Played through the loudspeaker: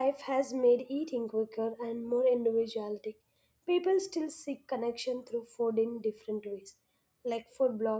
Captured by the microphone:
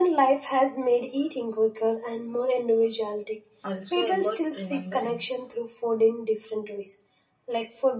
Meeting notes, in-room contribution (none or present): present